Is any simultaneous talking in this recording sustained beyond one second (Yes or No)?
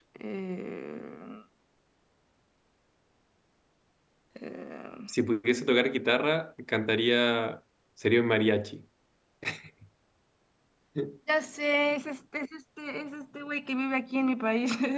No